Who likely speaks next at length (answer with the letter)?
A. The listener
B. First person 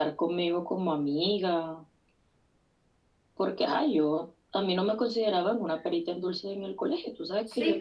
A